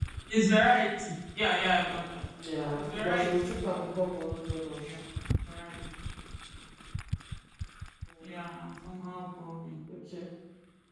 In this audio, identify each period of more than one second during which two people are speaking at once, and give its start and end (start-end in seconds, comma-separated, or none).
2.7-4.0